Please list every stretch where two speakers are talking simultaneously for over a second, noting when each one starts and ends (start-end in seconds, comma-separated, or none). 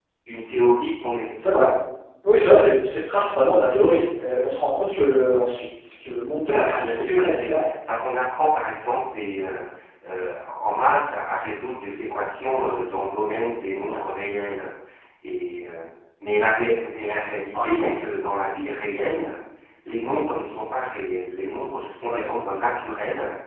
6.4-7.7